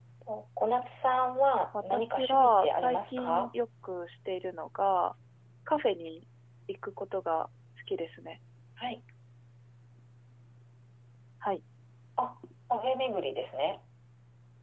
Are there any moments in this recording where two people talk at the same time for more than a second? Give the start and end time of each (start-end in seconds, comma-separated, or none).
1.8-3.5